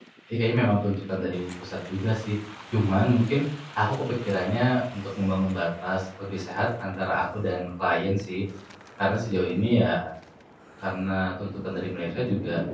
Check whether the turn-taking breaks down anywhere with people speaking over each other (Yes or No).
No